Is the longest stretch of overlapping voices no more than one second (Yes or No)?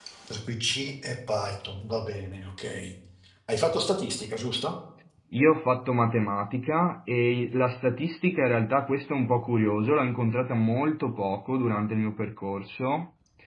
Yes